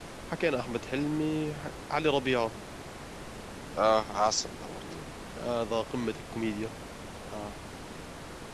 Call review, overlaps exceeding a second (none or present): none